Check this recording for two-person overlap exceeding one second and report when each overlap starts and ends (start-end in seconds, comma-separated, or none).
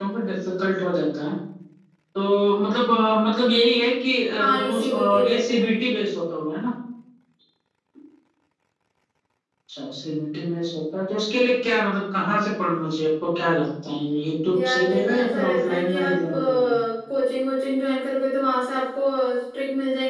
4.4-5.7, 14.7-16.7